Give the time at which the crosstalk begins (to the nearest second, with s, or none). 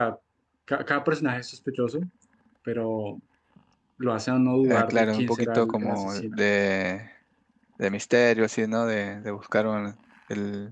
5 s